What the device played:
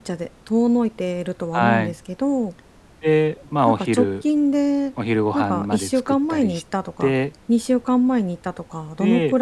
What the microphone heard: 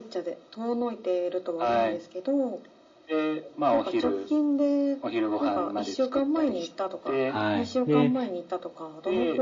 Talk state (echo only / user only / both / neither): both